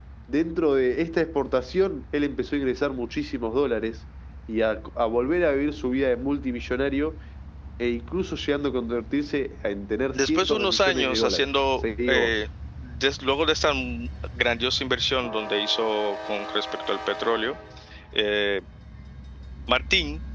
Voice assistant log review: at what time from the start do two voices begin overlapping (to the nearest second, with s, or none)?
10 s